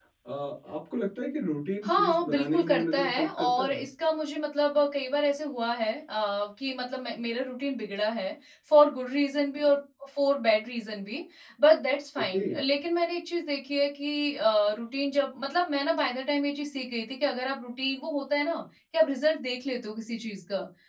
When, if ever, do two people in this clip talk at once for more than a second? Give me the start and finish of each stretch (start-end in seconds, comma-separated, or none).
1.8-3.8